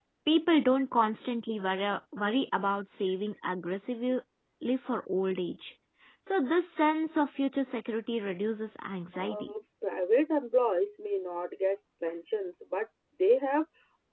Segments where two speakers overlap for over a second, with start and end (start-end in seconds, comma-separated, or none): none